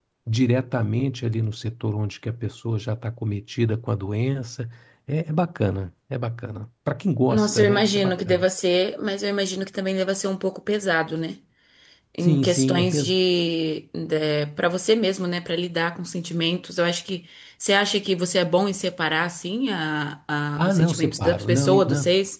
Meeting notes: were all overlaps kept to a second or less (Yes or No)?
No